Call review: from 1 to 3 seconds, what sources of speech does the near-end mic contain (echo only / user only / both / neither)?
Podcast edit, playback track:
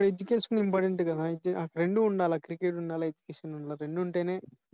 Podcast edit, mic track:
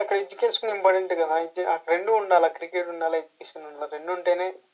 echo only